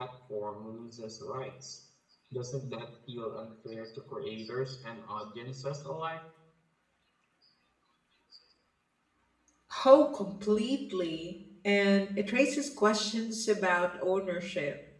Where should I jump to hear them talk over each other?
none

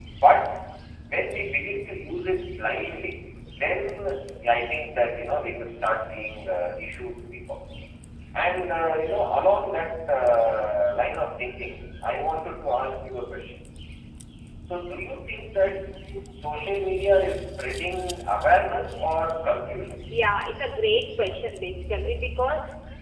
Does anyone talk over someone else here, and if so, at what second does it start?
none

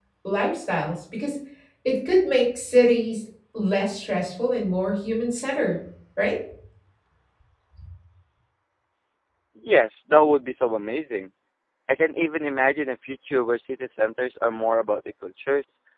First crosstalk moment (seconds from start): none

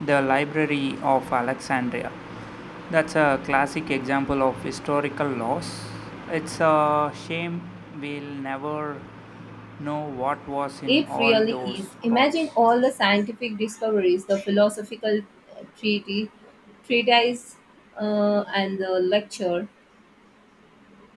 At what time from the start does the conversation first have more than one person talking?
10.9 s

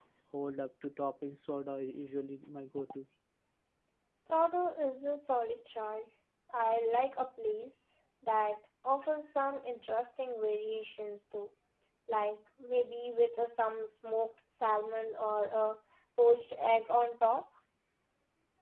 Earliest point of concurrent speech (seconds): none

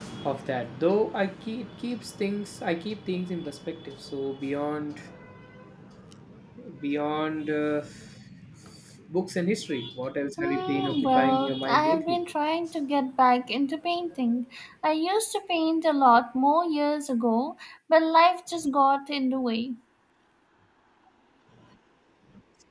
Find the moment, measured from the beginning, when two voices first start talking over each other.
10.4 s

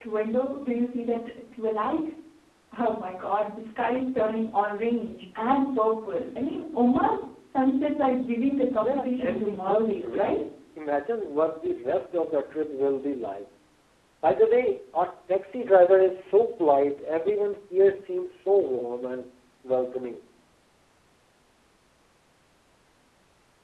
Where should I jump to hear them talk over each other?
8.8 s

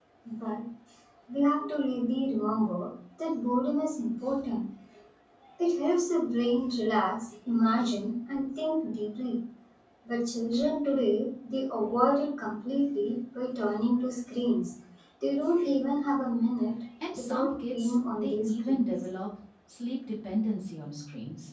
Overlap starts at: 17.0 s

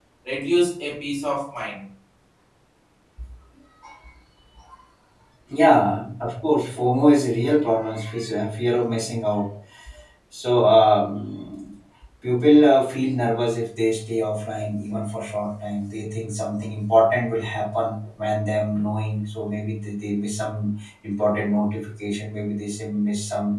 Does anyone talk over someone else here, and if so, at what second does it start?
none

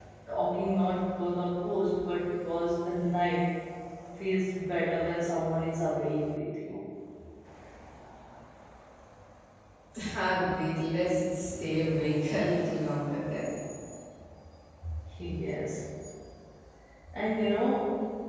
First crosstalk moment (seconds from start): none

